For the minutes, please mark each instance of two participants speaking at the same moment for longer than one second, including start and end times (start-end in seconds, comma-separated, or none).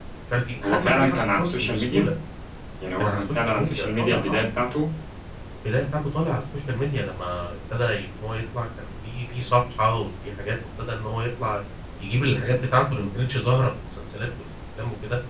0.6-2.1, 3.0-4.4